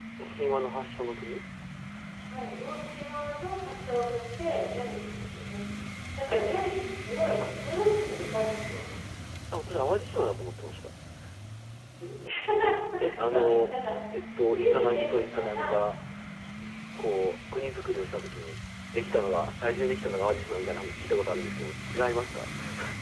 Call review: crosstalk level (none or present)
present